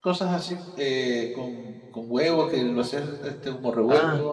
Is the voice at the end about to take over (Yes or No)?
Yes